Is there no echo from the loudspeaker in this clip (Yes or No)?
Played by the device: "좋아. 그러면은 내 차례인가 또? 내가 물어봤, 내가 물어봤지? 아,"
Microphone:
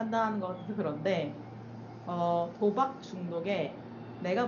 Yes